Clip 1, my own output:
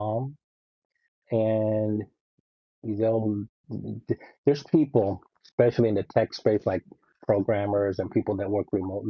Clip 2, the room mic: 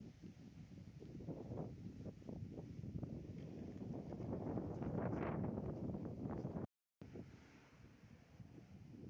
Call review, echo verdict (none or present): none